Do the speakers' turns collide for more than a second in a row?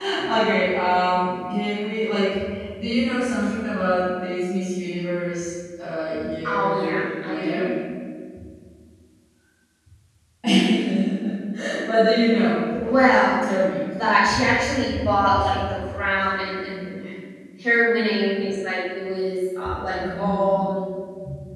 Yes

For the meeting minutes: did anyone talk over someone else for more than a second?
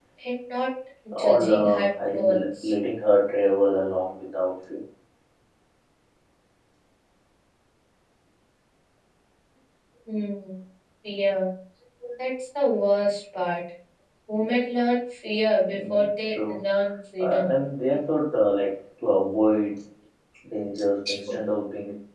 Yes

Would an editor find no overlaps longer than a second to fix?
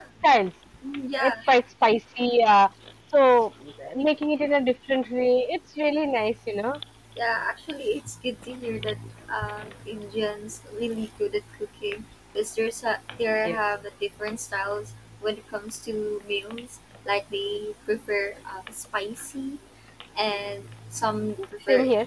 Yes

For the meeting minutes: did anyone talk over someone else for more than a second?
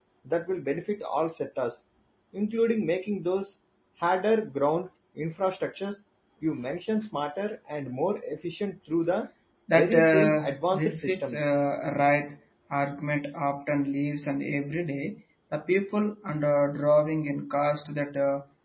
Yes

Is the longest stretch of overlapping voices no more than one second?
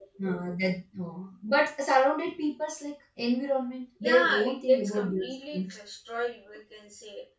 No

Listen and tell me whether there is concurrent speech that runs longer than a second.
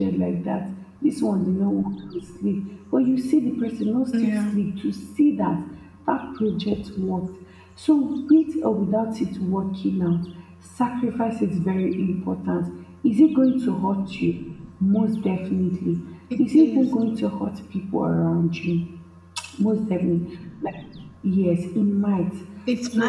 No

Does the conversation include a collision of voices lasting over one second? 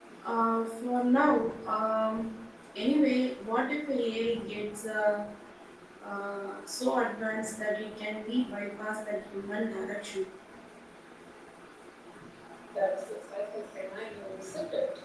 No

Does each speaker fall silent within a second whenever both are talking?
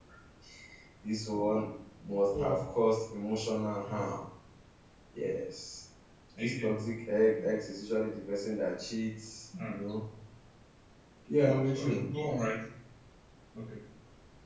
Yes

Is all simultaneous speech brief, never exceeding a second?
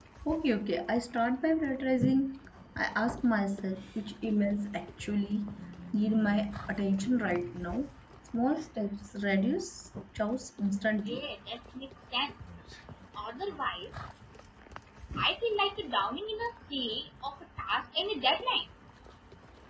Yes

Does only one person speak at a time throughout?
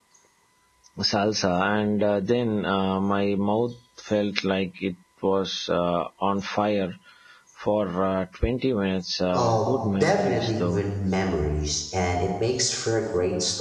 No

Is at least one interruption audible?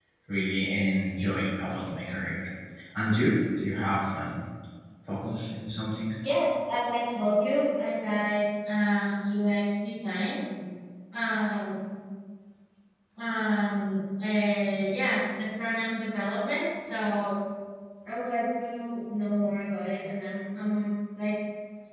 No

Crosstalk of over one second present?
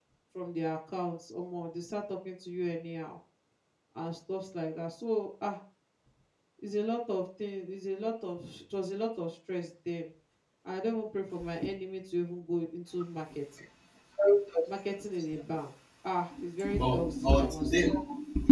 Yes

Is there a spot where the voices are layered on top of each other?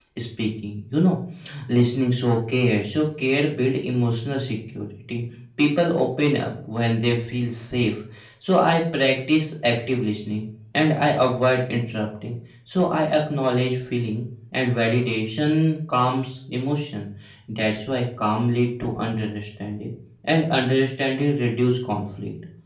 No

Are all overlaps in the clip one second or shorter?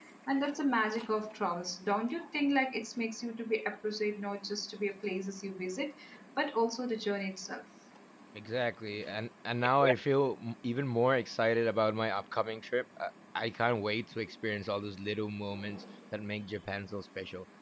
Yes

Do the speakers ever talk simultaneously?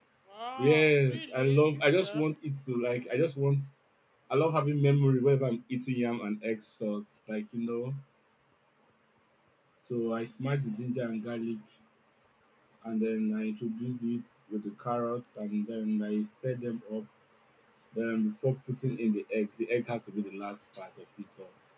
Yes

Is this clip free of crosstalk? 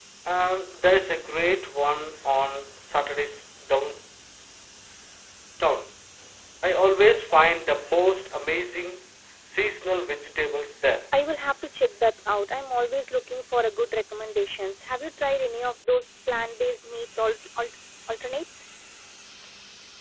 Yes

